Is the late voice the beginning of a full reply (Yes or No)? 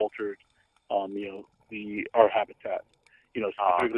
No